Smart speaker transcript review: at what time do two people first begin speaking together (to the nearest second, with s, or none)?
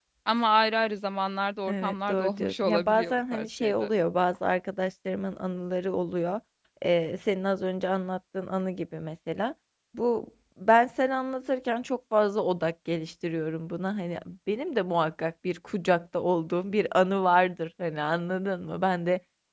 2 s